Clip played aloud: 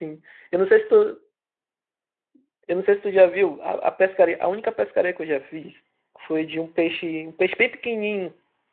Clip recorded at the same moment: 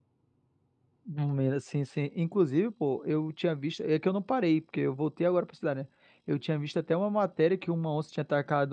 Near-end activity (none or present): present